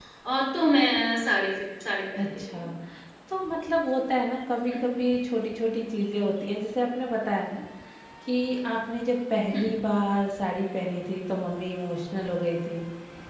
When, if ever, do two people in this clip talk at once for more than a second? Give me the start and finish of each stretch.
none

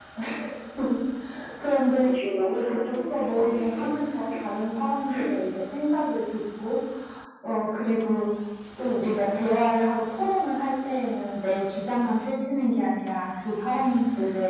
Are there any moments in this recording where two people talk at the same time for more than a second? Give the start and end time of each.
2.5-3.9

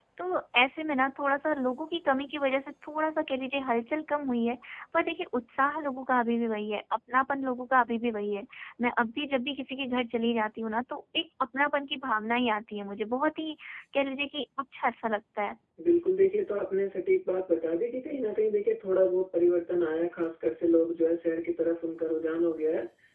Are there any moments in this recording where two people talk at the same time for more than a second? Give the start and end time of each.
none

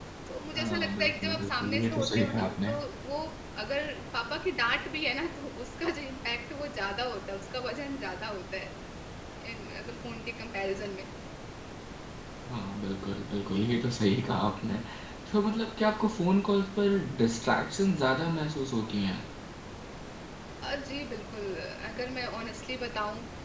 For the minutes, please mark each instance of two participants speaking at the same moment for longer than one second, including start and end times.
0.6-2.7

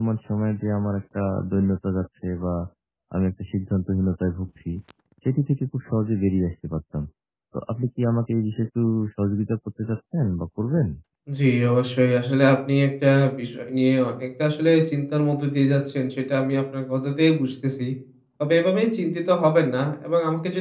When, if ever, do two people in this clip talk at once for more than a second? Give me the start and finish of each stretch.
none

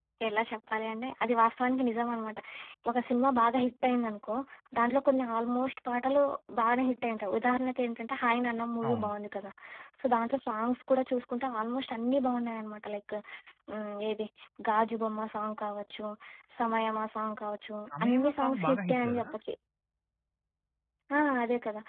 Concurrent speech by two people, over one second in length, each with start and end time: 18.0-19.3

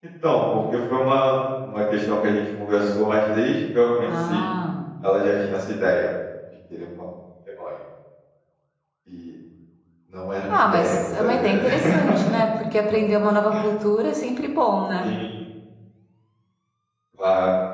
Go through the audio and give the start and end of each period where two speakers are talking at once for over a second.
10.6-12.0

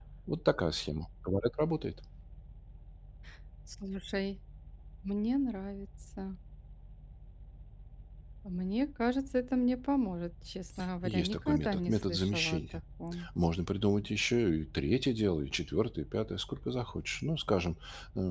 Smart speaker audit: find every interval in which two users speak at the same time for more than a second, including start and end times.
11.0-12.6

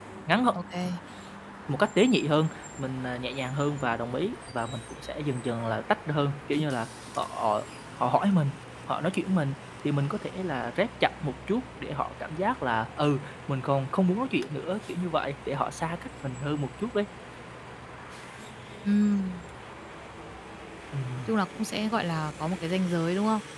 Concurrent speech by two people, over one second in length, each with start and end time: none

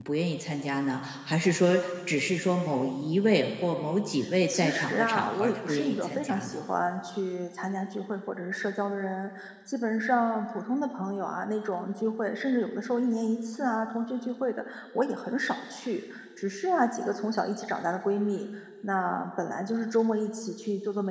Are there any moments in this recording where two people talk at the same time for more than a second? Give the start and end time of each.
4.5-6.6

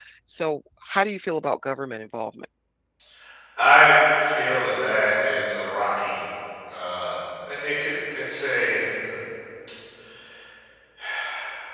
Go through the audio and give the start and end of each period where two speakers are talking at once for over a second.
none

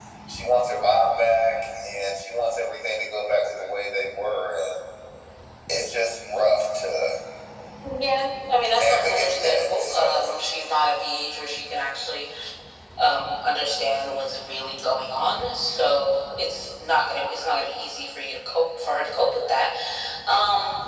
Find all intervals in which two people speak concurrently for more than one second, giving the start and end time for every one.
8.6-10.2

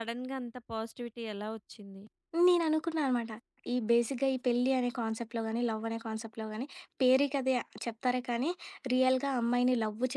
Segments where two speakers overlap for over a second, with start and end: none

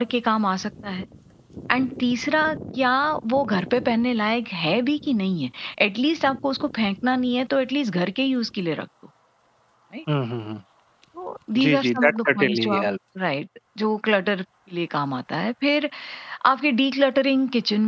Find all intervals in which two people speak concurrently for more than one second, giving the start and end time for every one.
11.6-12.9

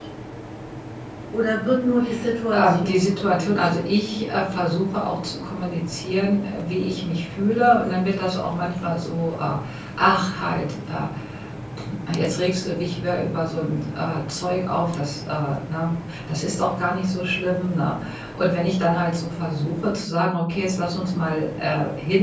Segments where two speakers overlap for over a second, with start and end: 2.5-3.9

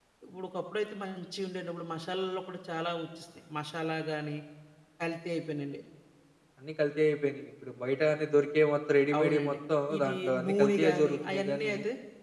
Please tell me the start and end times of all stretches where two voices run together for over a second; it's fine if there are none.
10.0-11.7

